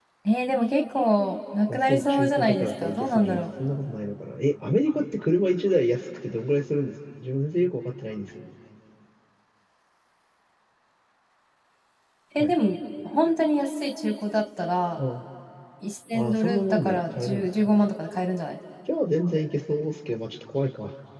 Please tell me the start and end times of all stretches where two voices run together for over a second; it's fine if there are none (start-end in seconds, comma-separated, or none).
1.7-3.4, 16.1-17.9